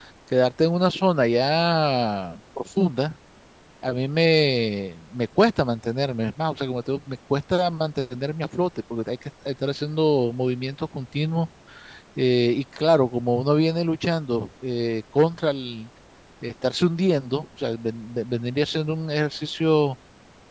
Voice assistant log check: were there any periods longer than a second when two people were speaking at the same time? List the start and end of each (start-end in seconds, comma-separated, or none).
none